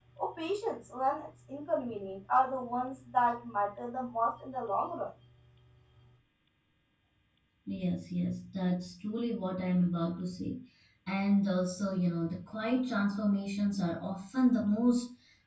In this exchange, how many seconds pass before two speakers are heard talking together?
none

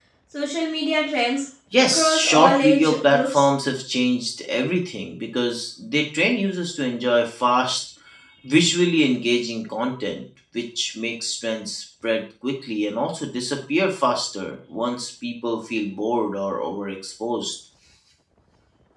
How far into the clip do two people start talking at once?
1.7 s

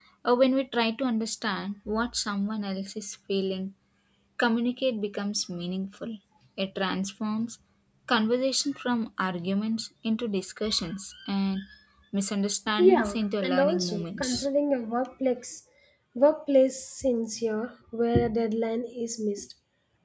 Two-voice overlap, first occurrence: 12.8 s

